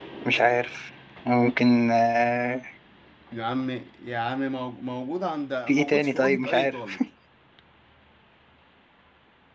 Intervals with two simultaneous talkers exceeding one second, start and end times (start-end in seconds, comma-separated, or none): 5.7-7.0